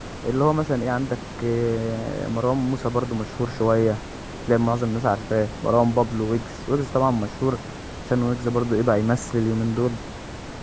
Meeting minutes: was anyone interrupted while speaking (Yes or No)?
No